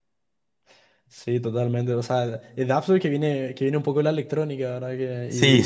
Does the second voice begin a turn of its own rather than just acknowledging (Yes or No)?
Yes